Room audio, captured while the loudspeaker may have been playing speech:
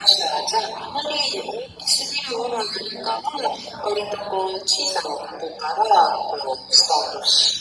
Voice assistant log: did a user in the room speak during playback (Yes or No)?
No